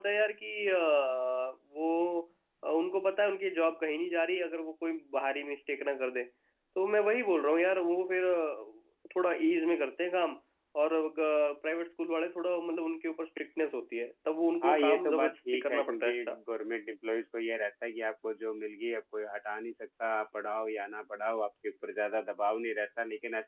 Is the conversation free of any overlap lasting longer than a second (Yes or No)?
No